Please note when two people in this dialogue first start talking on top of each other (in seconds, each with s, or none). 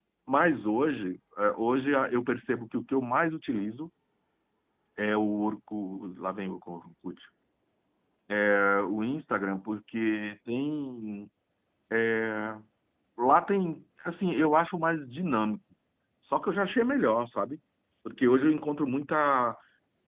none